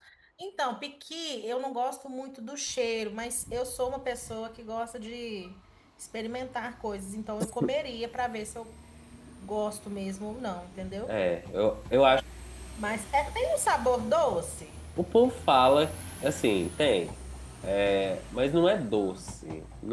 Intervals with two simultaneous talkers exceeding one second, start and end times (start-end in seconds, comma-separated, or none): none